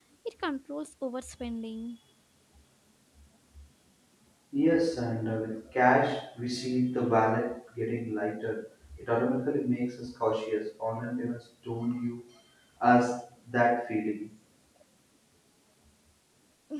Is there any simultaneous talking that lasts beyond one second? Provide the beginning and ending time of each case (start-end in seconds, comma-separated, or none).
none